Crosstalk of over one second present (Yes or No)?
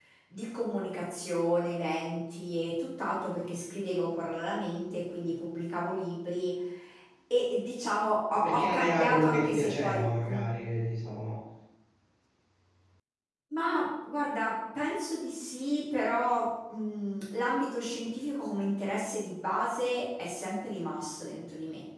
Yes